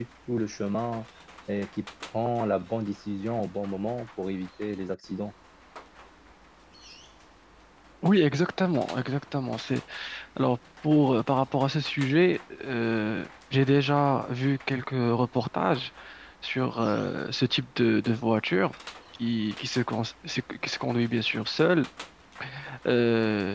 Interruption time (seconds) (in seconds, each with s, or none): none